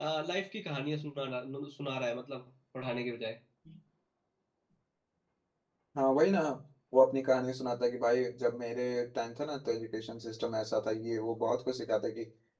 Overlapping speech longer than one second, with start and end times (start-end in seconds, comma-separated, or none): none